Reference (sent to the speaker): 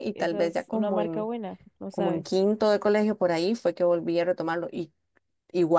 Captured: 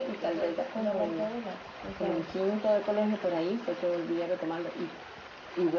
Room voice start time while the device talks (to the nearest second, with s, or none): none